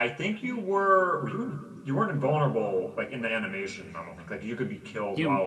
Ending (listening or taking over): taking over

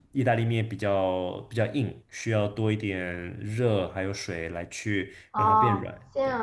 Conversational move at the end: taking over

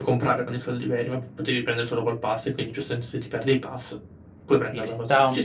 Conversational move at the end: taking over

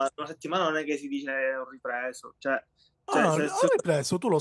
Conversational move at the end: taking over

